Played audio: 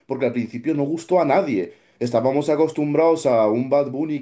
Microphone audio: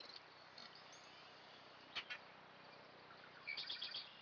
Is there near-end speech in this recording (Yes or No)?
No